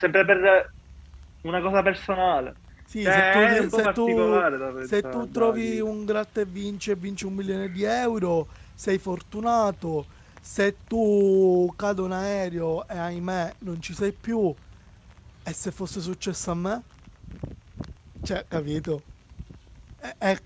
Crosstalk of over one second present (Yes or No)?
Yes